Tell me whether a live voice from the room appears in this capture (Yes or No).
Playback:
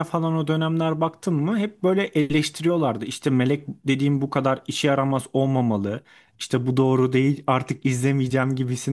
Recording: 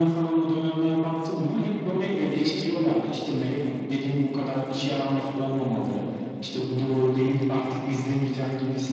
No